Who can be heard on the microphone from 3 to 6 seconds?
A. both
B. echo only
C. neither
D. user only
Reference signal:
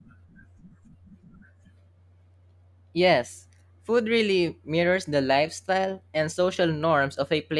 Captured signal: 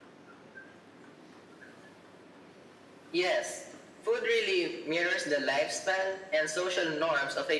B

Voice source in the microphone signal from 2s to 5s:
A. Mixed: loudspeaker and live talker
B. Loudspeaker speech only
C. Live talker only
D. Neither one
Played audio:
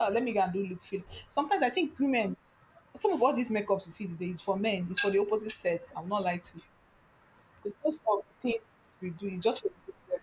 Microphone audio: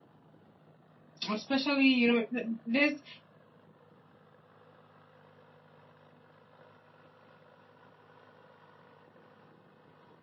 C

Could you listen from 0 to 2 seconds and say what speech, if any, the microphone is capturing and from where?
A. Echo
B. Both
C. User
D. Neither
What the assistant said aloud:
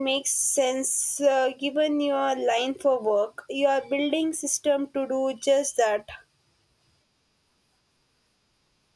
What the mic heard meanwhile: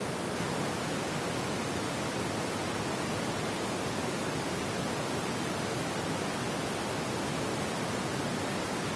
D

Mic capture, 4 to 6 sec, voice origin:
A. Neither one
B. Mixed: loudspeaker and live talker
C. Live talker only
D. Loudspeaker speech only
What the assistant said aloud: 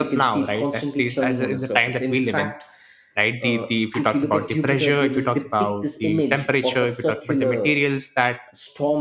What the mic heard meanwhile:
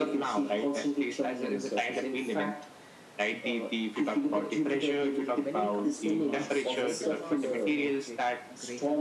B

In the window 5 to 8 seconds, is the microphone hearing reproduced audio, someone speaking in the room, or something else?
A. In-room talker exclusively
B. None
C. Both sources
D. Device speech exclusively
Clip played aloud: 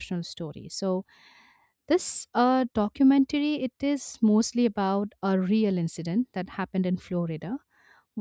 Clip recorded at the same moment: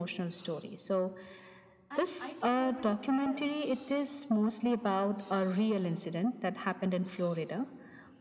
D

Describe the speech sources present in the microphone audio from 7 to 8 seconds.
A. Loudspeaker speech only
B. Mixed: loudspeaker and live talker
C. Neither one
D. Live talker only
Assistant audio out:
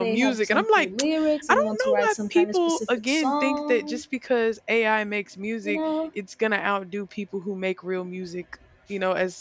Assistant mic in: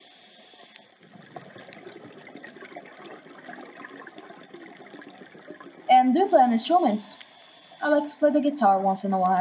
D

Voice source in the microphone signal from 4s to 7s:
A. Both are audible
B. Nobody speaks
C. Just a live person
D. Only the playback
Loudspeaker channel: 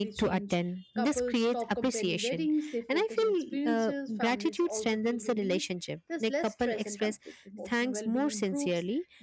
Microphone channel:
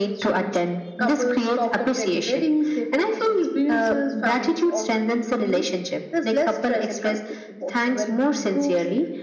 D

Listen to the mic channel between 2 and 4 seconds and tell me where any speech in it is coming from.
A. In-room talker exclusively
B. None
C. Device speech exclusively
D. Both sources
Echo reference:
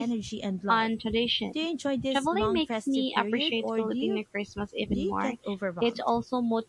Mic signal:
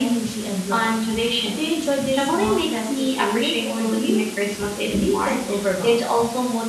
C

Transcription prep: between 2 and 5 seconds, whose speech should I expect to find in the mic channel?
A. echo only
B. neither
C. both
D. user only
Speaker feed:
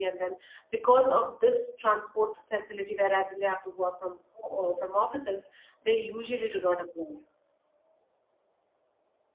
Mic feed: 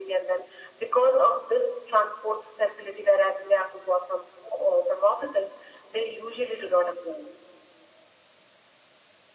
A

